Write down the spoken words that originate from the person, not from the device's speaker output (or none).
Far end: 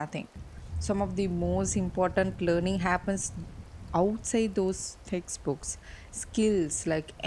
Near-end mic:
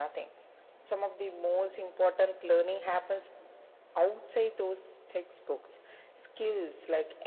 none